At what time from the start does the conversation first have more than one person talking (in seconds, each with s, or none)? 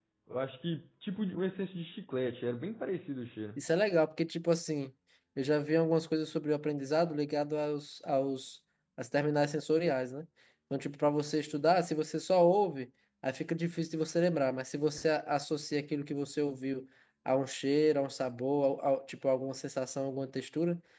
none